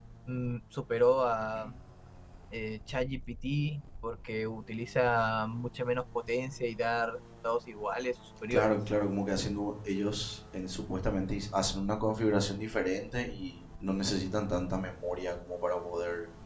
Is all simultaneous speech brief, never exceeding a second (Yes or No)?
Yes